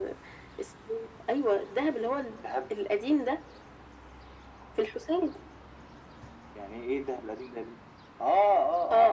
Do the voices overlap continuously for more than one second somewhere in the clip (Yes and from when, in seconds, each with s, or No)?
No